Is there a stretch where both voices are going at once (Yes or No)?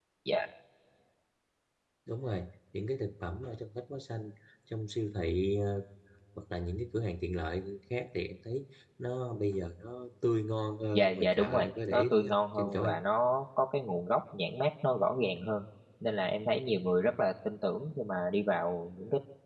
Yes